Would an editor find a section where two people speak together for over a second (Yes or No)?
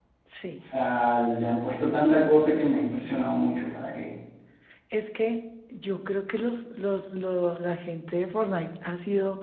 No